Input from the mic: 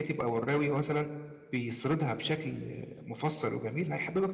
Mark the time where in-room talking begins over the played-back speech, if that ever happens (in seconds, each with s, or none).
none